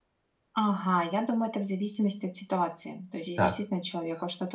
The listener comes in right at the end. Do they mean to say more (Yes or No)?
No